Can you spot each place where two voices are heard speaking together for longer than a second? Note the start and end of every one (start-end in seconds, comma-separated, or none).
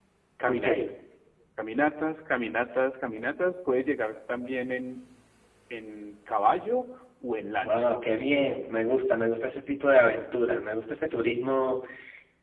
none